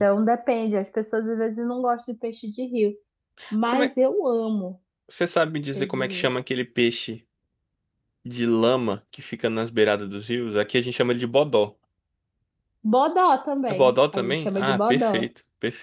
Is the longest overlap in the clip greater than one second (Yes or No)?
Yes